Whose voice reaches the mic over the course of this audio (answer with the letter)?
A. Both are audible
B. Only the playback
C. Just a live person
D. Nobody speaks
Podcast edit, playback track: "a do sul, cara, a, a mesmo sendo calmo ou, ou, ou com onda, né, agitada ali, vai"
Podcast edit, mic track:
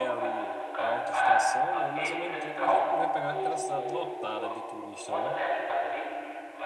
A